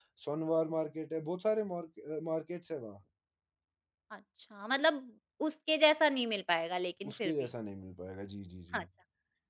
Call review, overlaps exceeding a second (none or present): none